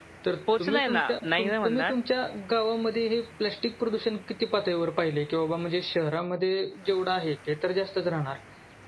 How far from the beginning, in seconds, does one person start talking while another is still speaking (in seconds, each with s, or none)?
0.6 s